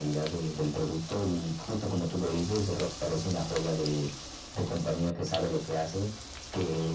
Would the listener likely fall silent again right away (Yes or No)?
Yes